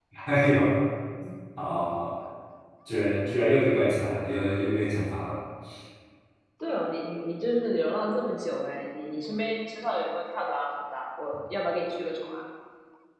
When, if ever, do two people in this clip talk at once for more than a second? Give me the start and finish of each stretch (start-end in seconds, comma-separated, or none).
none